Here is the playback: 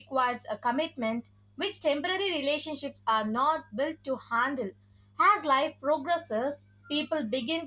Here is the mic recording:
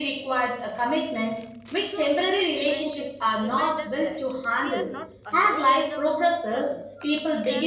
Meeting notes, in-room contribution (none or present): present